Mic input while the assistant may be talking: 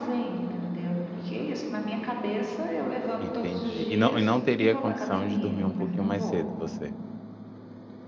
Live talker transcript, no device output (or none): Entendi. E não e não teria condição de dormir um pouquinho mais cedo você?